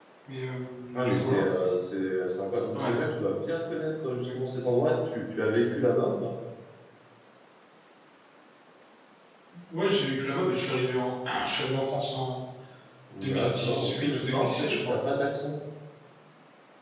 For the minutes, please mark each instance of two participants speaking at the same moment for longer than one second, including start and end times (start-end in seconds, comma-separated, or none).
13.2-15.0